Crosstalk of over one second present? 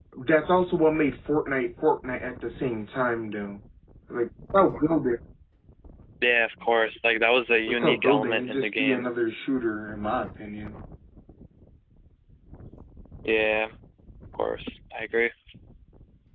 Yes, from 7.7 s

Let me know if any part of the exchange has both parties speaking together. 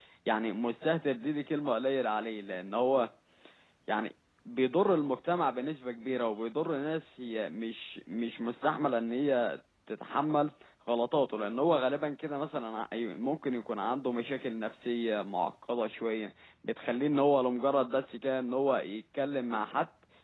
No

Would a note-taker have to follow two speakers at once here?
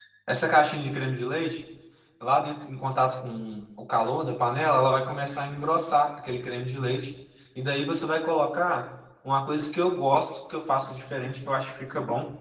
No

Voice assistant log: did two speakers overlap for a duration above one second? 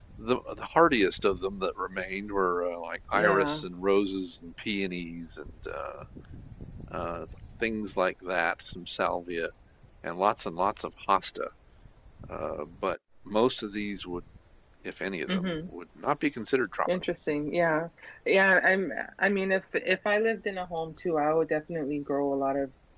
No

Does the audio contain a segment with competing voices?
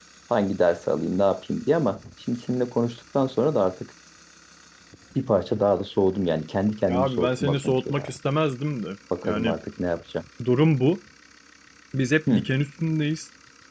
Yes, from 6.9 s

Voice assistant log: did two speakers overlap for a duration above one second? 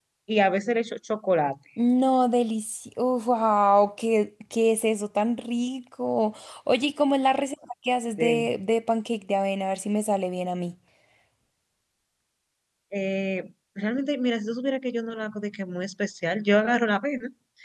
No

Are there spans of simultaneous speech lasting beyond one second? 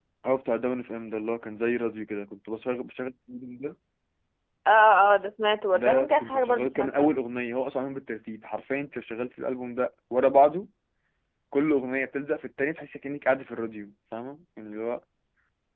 Yes, from 5.7 s

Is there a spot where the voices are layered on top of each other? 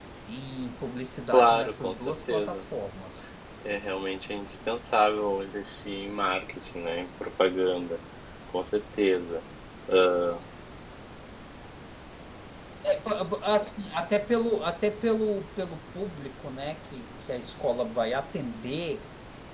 Yes, from 1.3 s

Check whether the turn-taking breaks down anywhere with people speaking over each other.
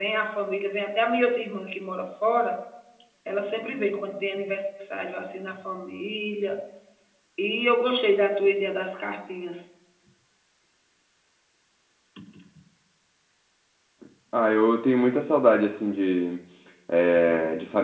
No

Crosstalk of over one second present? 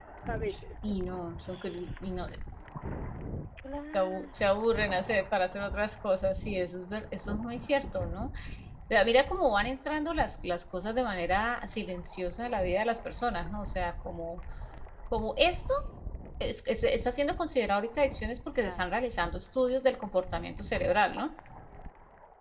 No

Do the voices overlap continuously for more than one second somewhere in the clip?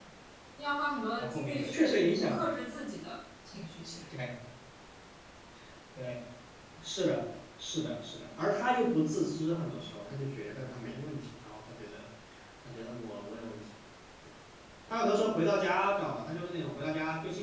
Yes, from 1.2 s

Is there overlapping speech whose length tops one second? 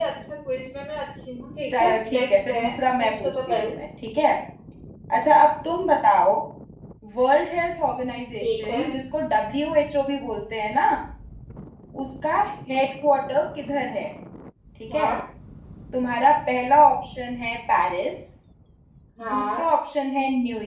Yes, from 1.8 s

